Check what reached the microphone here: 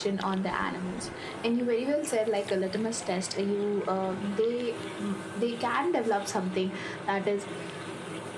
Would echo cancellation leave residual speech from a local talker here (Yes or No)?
No